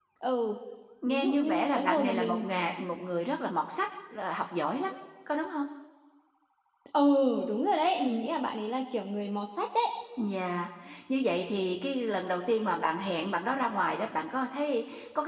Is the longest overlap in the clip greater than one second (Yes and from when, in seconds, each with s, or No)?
Yes, from 1.1 s